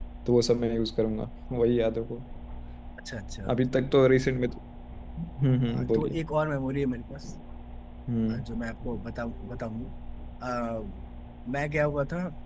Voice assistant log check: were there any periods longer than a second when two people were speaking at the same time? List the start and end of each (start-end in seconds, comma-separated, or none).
none